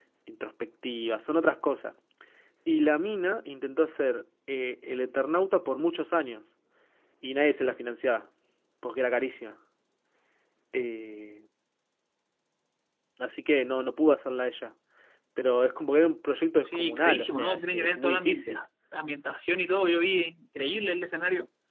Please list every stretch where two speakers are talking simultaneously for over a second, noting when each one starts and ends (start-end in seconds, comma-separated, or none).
16.6-18.6